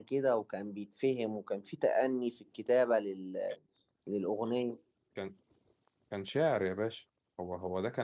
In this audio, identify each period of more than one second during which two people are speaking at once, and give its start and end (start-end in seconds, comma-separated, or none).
none